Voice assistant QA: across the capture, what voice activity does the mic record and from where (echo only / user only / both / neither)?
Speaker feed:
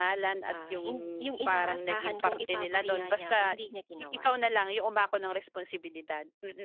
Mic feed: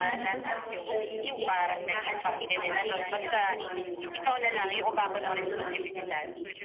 both